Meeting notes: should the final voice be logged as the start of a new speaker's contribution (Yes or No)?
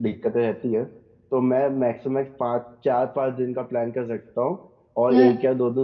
No